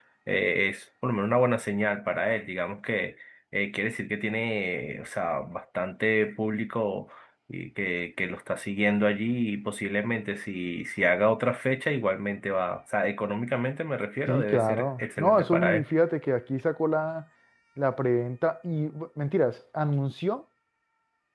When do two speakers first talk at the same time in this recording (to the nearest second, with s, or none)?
14 s